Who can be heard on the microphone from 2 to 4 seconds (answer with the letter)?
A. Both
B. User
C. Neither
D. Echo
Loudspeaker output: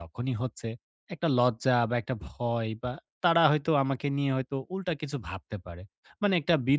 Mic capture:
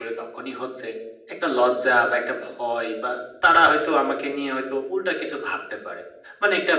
D